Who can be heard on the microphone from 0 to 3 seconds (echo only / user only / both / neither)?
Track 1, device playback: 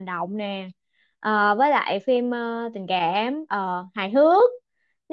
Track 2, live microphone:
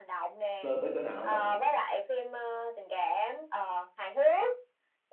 both